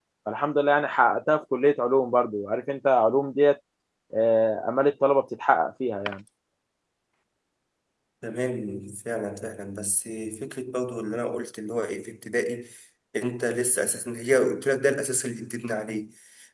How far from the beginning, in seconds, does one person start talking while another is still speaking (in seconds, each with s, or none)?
none